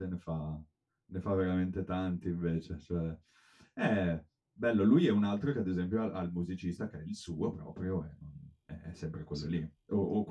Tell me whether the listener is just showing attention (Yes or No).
Yes